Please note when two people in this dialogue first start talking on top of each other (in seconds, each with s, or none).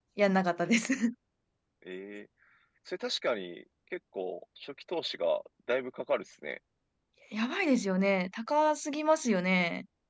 none